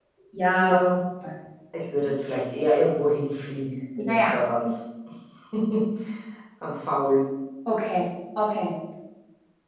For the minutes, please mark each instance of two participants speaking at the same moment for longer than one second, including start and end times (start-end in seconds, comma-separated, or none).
none